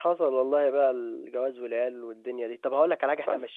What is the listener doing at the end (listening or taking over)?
listening